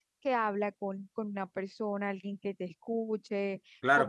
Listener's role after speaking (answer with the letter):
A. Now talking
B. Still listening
A